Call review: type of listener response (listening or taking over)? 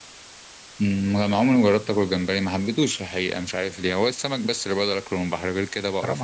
taking over